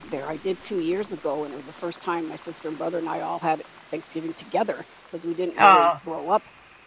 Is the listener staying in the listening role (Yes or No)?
Yes